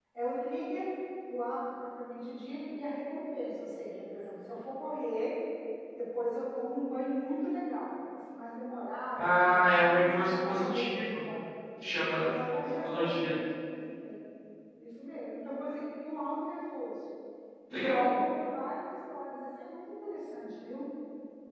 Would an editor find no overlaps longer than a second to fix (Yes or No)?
No